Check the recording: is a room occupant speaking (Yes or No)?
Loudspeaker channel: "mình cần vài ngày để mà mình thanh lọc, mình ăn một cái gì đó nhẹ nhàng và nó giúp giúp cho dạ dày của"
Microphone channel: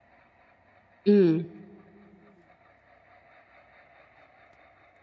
Yes